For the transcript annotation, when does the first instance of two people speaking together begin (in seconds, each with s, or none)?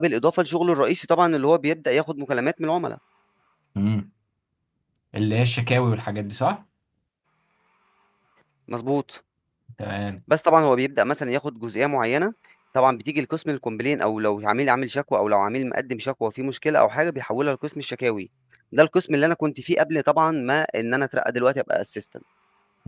none